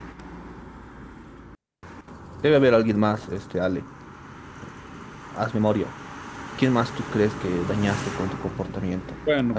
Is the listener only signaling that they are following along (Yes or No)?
No